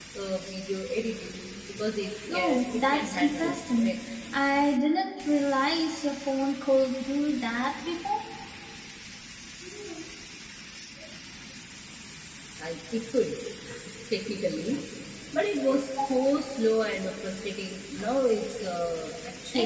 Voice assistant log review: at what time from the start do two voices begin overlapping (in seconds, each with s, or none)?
2.3 s